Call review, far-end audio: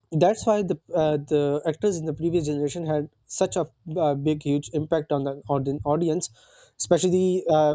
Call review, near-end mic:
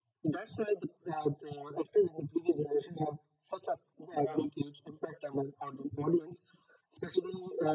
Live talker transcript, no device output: Yeah.

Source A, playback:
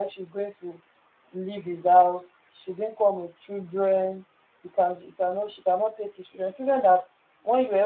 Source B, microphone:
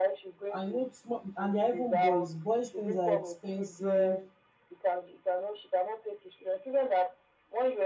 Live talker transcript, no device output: i know small and they are even boys boys things are expensive

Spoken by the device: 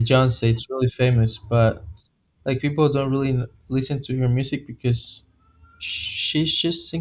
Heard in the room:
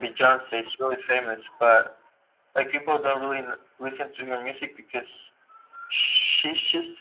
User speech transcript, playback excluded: none

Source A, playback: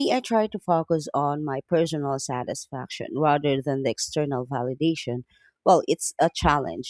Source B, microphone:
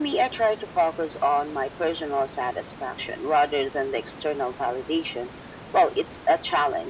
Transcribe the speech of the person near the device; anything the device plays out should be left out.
none

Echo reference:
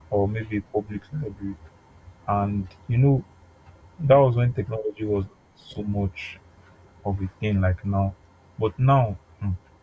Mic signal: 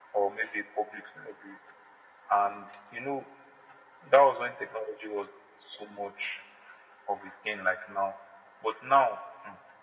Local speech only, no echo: none

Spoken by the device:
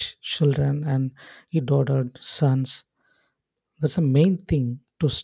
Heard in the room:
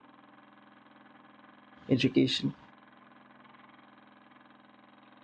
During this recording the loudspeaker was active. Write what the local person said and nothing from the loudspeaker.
education.

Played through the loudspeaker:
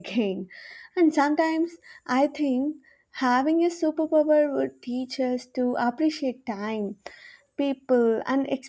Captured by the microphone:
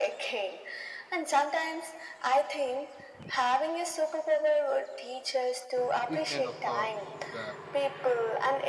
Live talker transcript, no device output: these kind of thoughts were

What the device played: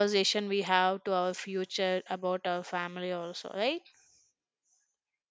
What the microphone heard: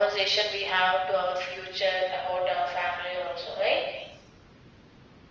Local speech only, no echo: none

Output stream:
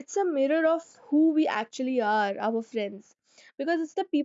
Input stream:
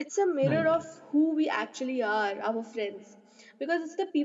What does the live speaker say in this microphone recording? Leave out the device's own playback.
Right,

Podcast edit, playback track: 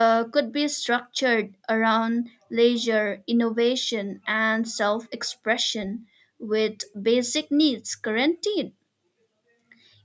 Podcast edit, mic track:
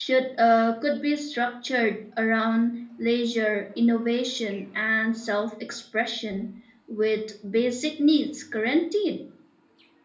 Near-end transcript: none

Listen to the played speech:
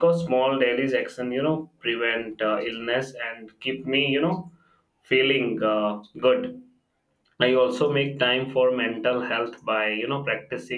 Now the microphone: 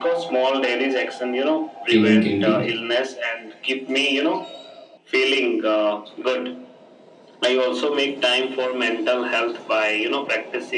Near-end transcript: feeling guilty

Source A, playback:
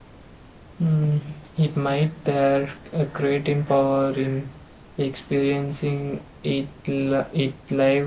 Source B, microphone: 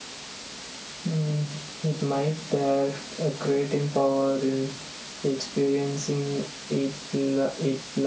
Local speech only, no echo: none

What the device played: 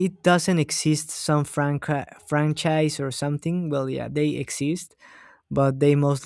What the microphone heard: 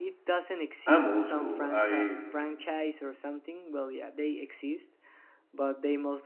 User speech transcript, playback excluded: I'm old school. I

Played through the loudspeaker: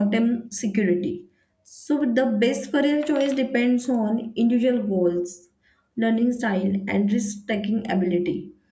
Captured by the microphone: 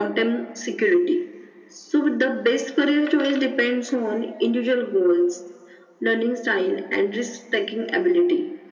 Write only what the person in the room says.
none

